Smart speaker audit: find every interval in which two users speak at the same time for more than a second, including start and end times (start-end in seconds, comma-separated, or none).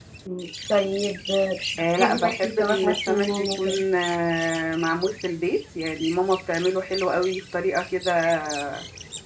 1.8-3.8